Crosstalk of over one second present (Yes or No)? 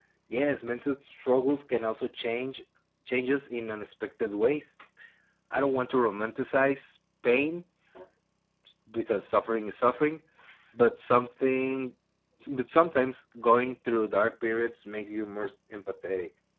No